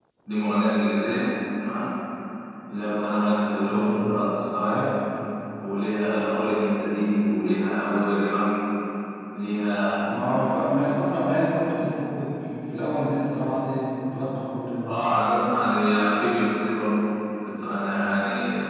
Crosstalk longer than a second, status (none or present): none